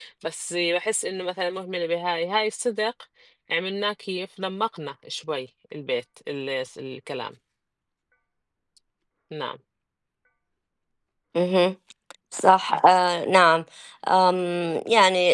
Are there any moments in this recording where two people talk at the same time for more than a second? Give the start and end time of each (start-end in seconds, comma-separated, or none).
none